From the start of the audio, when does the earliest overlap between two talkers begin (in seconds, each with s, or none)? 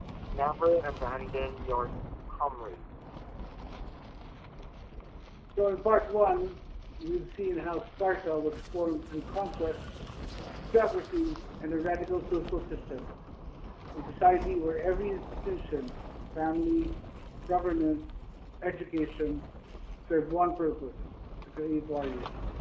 none